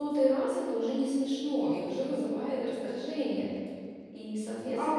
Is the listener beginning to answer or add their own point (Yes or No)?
Yes